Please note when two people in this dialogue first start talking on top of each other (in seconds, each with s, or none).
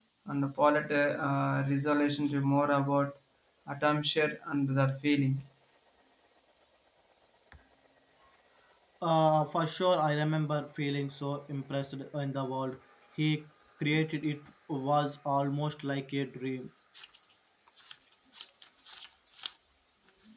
none